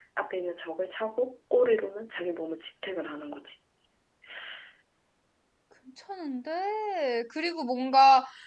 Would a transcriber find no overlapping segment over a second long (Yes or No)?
Yes